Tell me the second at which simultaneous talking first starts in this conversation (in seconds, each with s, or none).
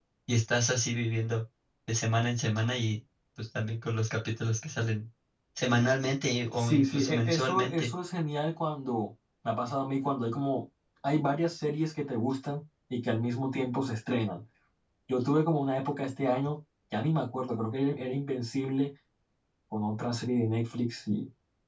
6.6 s